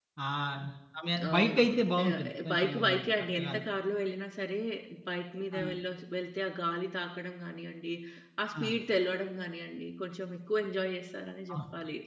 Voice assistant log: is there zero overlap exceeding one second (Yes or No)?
No